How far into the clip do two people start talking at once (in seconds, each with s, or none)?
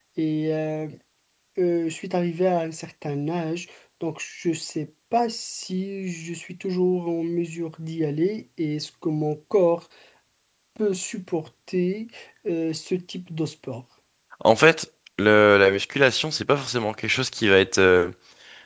none